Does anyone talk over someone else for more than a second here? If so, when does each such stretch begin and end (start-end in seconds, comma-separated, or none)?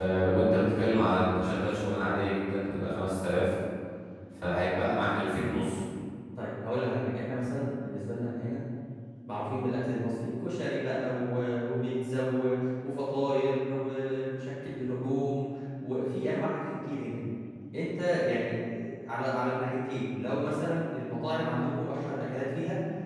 none